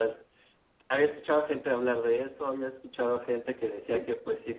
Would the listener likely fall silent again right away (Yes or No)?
Yes